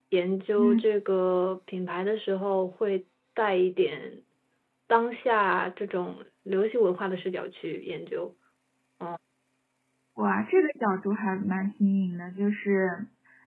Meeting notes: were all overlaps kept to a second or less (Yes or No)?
Yes